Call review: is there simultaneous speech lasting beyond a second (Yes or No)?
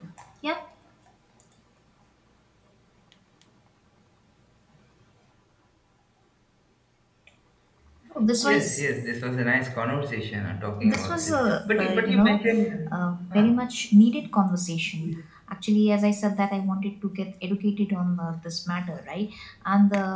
Yes